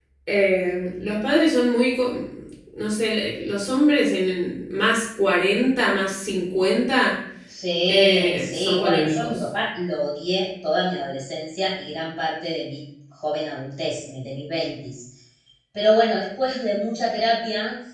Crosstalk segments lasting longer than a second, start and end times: 7.9-9.4

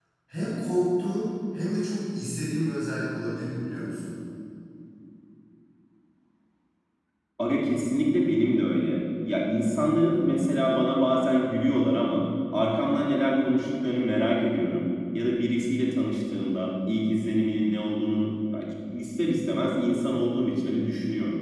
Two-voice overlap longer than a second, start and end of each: none

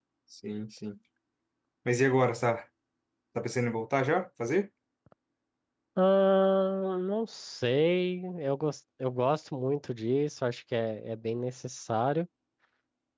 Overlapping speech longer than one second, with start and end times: none

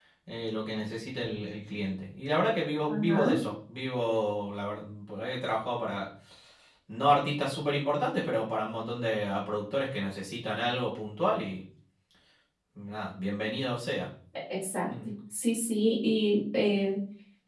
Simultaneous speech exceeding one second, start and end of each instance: none

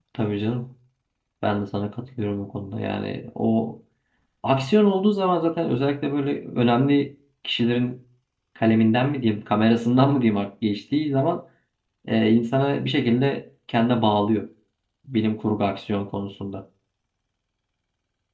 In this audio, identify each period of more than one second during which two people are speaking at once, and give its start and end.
none

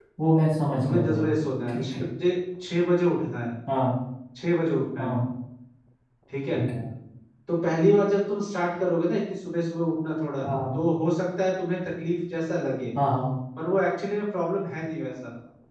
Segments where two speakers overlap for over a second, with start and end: none

